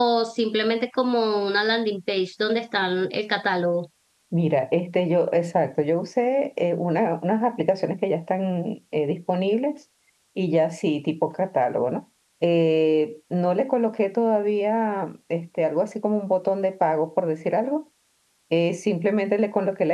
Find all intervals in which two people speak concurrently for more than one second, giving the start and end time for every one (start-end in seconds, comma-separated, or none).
none